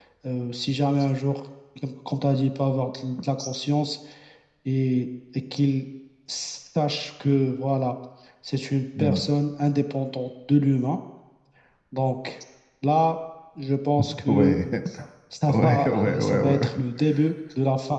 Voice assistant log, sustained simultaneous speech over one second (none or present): present